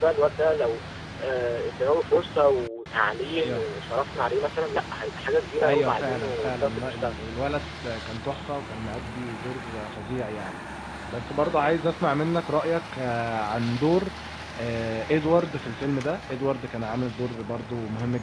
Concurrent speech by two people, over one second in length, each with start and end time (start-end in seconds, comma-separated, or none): 5.6-7.1